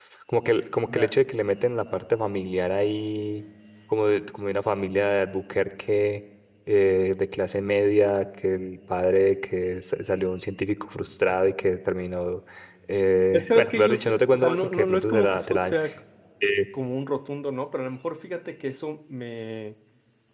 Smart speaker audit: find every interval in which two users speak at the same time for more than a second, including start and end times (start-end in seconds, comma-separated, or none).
13.3-15.8